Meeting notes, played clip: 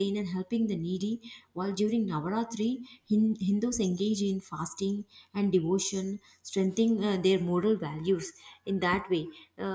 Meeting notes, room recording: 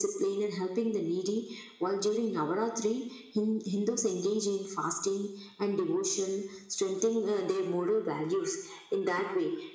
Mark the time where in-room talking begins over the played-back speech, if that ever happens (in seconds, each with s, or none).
none